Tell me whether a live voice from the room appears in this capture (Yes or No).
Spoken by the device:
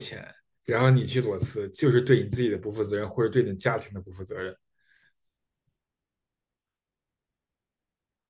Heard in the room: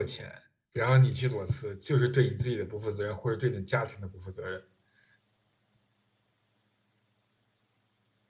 No